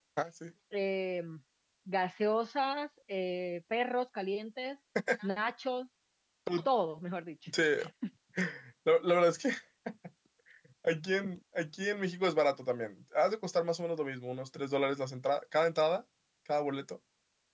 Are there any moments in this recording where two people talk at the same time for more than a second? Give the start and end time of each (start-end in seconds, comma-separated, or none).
none